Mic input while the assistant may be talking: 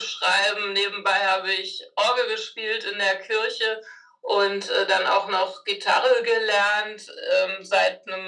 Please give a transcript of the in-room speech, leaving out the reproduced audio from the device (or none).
none